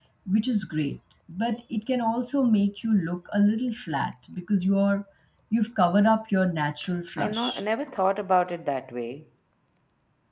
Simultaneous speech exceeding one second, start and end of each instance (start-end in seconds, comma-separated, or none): none